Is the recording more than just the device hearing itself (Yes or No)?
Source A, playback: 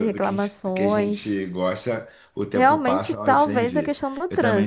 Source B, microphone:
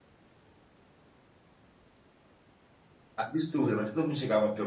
Yes